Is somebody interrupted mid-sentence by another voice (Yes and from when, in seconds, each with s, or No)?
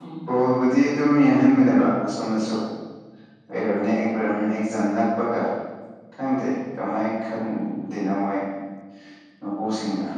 No